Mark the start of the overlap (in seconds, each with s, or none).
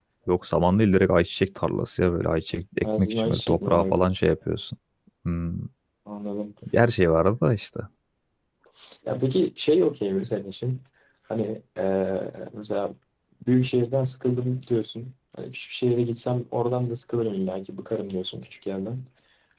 2.8 s